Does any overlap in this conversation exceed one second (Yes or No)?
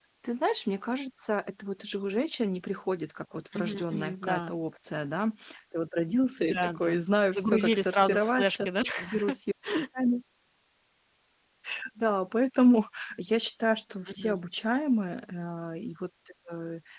Yes